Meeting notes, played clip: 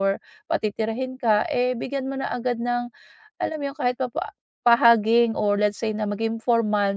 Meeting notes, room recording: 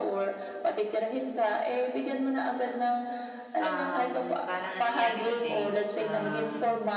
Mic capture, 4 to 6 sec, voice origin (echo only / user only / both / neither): both